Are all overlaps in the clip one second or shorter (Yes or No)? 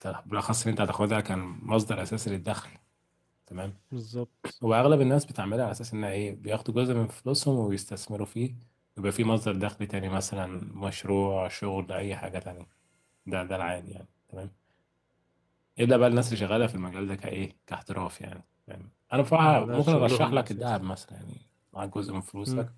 No